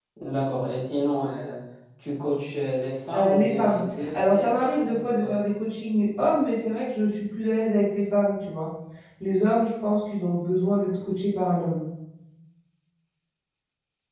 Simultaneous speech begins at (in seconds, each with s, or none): 3.1 s